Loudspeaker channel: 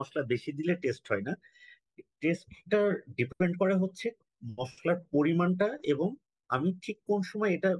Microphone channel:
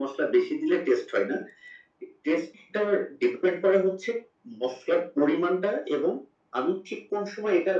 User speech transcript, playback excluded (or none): none